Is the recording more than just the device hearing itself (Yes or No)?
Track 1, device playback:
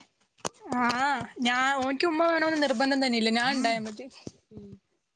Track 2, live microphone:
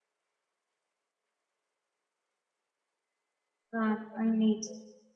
Yes